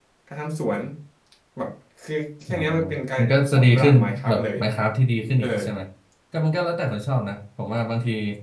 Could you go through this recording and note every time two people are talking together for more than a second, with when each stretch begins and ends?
3.2-4.6

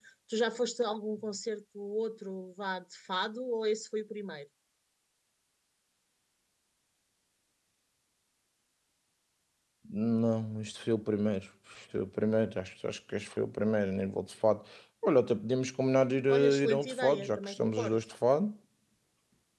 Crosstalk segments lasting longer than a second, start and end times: 16.3-18.0

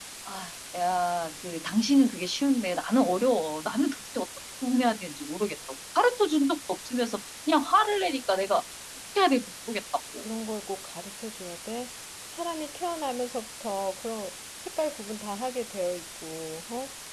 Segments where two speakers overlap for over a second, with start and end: none

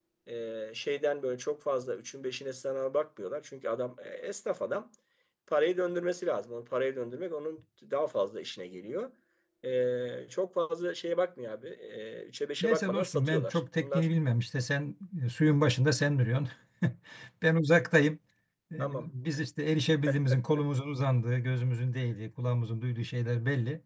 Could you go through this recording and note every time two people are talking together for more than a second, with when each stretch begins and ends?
12.6-14.1

